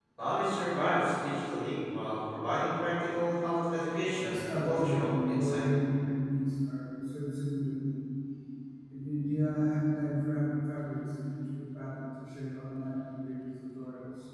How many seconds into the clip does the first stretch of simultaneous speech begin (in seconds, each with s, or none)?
4.2 s